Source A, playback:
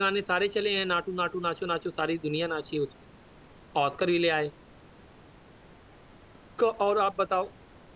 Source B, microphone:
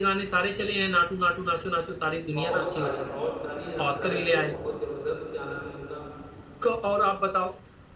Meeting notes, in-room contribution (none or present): present